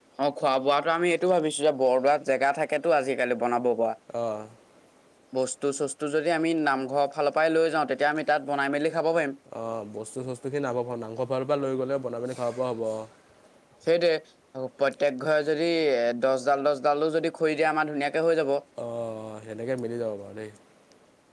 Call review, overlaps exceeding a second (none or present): none